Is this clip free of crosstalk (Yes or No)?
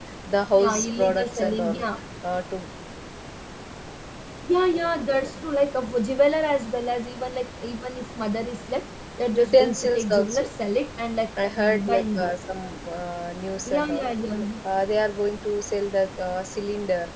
No